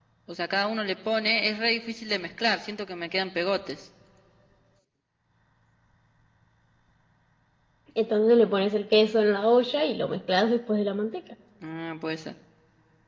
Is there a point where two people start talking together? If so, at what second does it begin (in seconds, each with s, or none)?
none